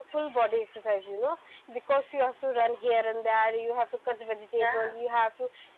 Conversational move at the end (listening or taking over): listening